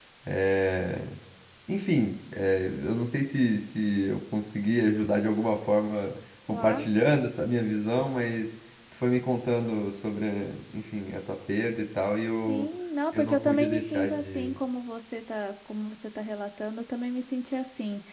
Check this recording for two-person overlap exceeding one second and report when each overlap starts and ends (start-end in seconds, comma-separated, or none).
13.1-14.5